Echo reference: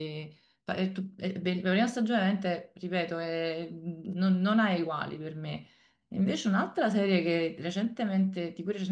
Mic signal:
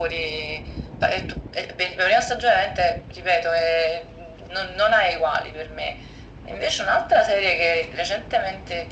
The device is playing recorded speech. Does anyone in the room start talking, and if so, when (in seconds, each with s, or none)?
none